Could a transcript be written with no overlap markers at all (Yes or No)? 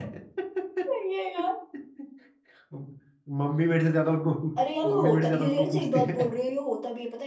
No